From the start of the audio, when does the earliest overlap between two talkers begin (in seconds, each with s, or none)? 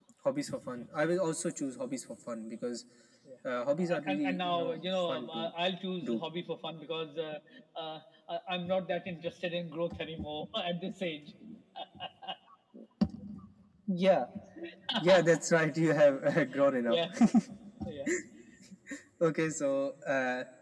3.8 s